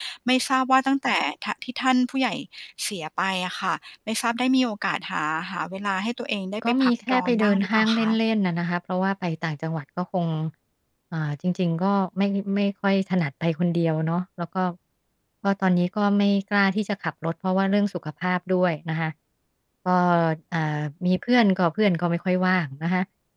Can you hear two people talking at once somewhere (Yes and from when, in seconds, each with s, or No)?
Yes, from 6.6 s